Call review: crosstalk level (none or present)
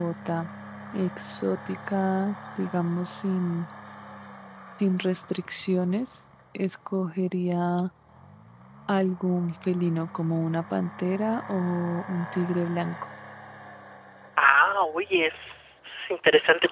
none